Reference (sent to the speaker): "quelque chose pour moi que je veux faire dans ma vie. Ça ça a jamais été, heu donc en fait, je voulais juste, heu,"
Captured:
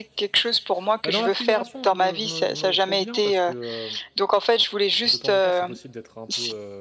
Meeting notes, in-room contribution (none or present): present